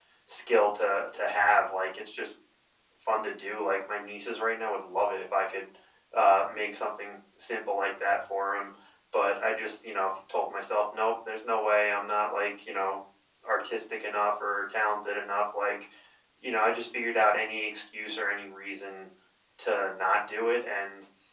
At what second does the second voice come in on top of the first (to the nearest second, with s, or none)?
none